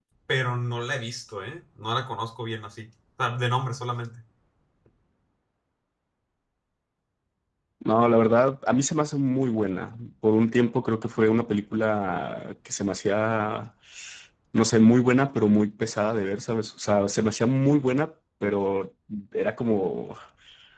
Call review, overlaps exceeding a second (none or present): none